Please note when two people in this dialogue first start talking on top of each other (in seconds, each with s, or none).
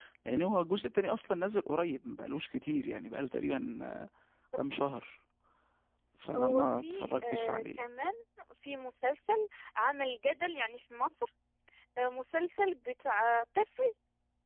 6.4 s